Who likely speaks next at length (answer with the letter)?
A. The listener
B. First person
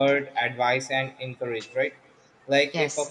B